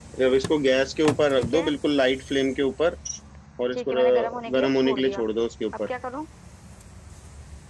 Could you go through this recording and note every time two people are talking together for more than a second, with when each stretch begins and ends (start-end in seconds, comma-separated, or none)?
3.7-5.3